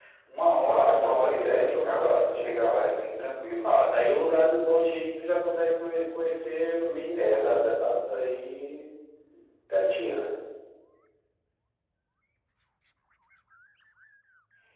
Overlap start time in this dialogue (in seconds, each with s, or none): 0.6 s